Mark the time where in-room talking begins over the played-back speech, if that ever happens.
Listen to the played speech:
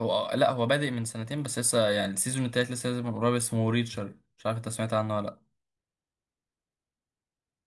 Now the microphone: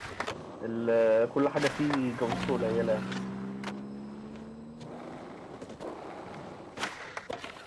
0.6 s

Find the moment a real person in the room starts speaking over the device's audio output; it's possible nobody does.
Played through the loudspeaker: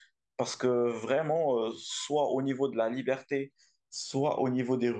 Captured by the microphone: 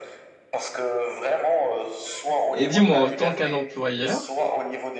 2.5 s

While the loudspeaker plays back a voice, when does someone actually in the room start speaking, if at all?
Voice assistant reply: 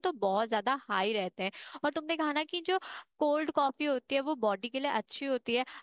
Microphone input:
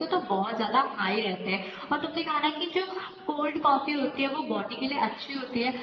none

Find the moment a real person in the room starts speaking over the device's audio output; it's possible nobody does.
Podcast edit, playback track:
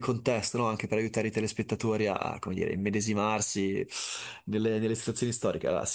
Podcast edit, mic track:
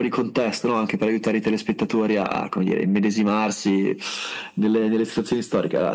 none

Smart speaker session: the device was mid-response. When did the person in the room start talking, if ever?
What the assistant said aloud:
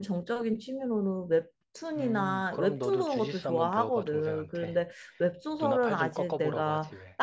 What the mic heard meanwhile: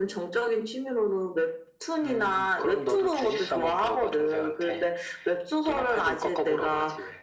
none

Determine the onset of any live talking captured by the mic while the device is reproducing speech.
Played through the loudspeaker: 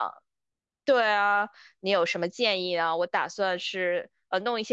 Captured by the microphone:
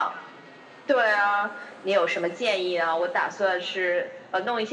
none

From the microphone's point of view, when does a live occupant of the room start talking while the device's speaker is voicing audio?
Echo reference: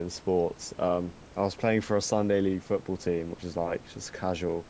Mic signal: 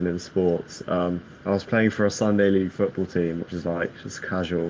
none

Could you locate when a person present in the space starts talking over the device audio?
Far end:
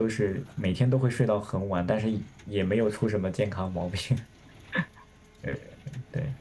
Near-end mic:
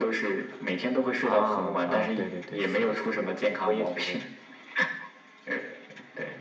1.2 s

